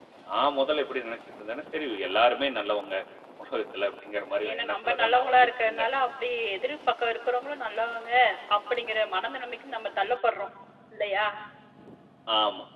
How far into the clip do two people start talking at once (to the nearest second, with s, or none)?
4 s